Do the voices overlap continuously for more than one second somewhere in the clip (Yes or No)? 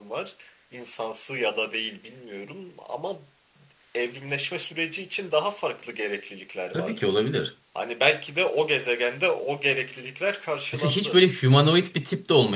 No